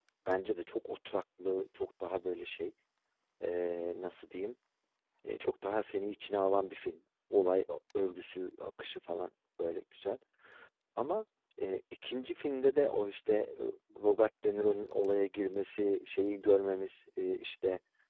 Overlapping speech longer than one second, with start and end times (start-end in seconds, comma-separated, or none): none